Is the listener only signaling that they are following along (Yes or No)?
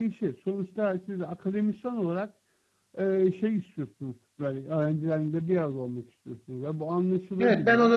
No